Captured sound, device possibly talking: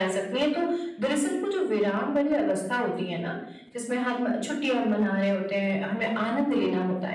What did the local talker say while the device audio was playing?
none

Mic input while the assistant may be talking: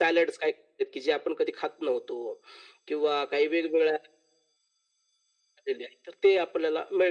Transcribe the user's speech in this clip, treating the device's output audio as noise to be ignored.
none

